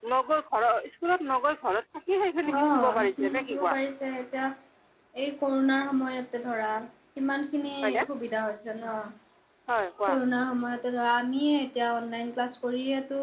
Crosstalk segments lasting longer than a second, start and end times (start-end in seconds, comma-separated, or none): 2.5-3.8